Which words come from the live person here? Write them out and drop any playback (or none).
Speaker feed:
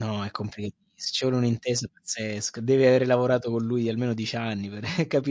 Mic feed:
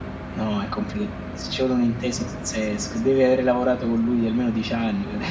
none